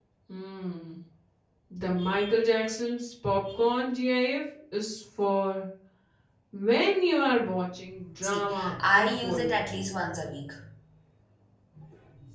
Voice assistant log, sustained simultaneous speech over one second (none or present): present